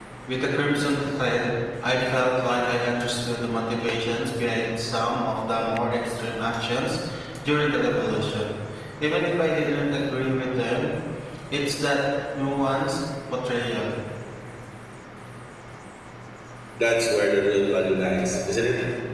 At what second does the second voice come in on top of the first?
none

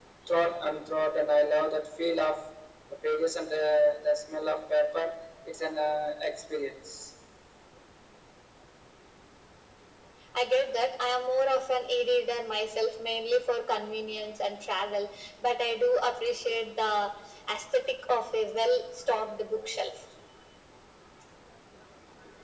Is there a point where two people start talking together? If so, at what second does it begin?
none

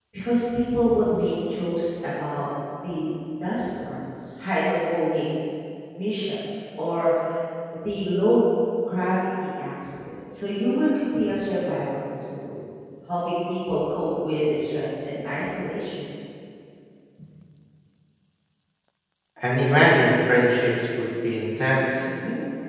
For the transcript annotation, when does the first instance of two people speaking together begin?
none

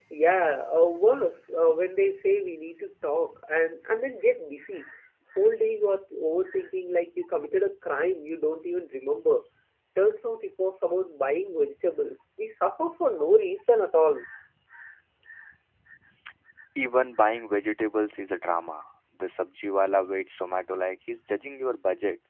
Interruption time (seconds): none

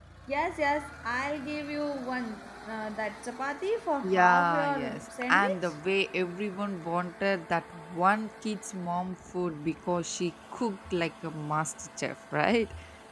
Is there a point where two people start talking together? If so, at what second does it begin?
4.0 s

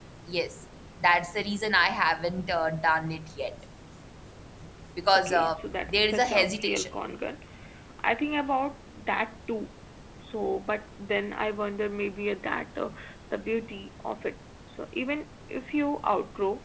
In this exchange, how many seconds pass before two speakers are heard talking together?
5.2 s

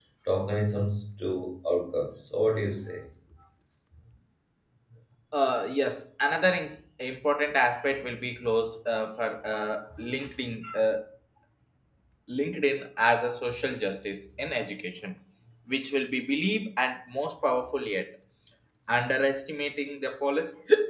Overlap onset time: none

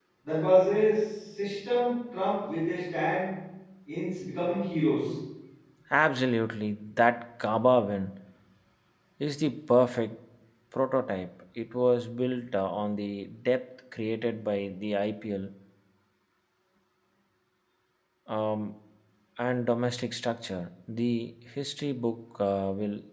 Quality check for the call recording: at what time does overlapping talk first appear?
none

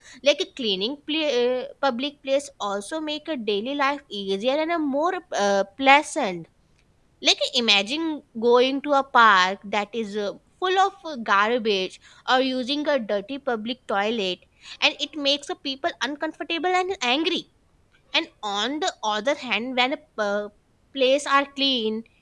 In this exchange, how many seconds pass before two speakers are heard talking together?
none

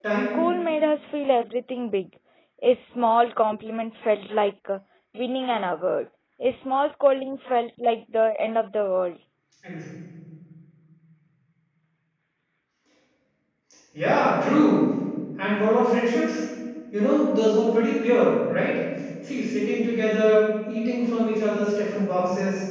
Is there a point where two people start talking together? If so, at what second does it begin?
none

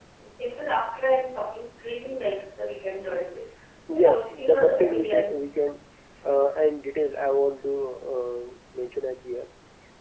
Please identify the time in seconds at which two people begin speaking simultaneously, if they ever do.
4.0 s

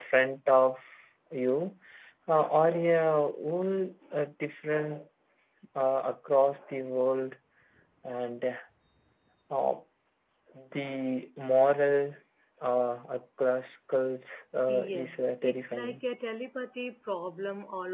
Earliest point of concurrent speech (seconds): 14.7 s

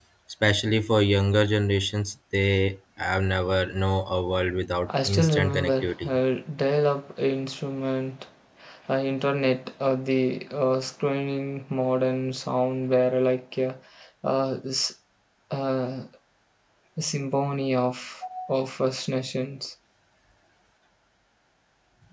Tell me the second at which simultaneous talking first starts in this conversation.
4.9 s

